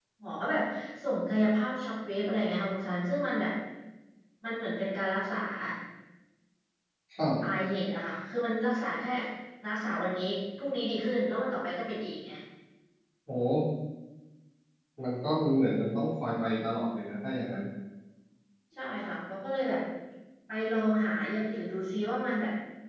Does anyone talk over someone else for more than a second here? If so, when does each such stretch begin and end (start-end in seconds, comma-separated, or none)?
none